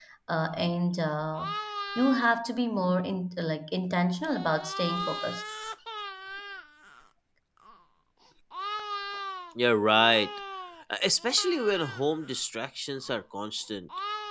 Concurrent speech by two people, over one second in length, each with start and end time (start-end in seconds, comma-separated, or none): none